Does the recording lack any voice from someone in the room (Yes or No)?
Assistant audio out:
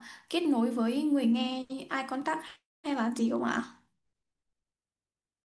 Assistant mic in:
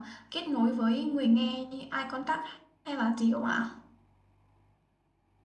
Yes